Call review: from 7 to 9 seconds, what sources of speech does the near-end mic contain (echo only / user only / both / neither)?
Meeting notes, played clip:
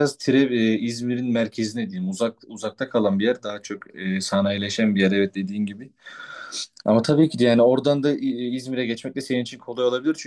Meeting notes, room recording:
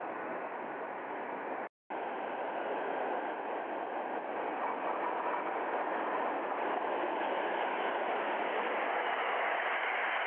neither